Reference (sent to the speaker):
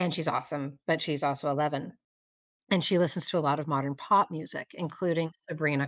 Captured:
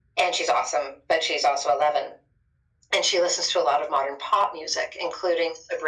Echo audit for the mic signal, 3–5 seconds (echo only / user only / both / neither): echo only